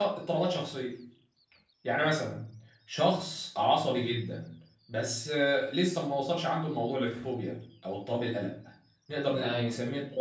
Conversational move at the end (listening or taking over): listening